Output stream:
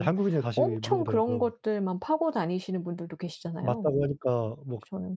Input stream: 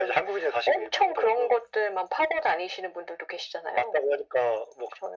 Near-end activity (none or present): none